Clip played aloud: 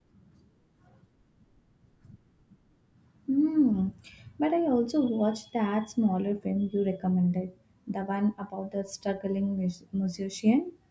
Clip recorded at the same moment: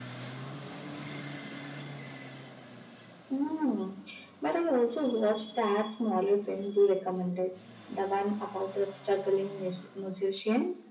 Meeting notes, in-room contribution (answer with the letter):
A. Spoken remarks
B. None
B